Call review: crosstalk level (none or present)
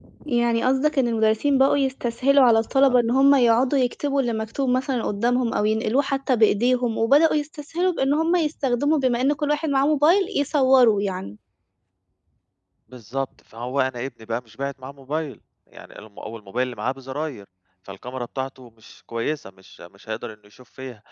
none